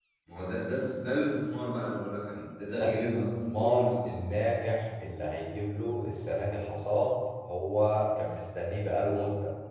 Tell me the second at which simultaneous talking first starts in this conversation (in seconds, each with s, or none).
2.8 s